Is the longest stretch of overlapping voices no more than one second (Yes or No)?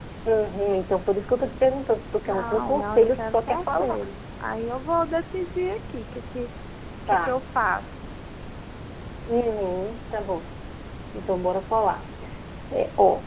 No